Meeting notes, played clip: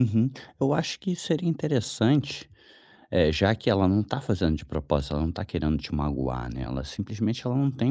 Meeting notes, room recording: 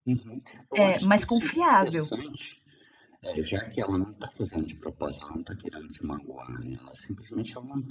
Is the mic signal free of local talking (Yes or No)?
No